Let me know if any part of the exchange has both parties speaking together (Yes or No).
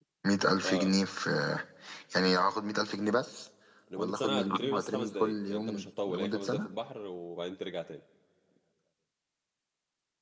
Yes